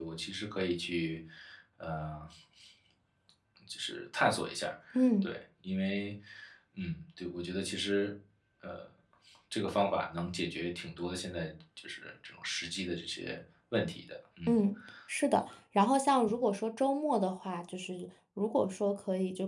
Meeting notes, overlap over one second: none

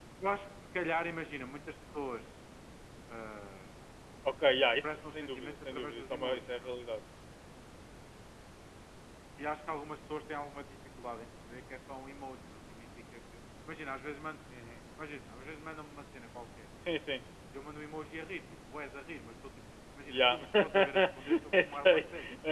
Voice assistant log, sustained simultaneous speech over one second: present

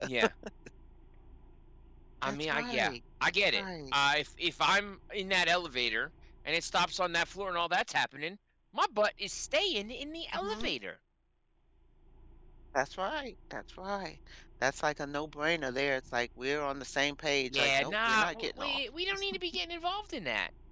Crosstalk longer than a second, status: present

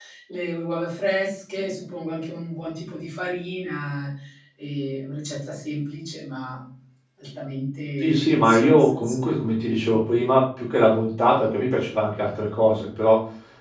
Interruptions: present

